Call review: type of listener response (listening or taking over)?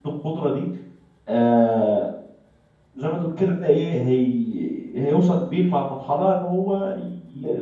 taking over